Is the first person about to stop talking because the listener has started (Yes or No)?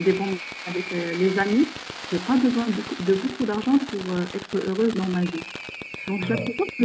No